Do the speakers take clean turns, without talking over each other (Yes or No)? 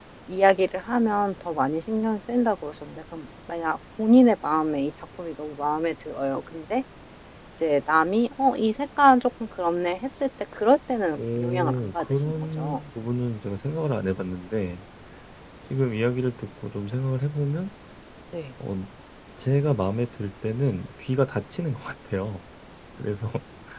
No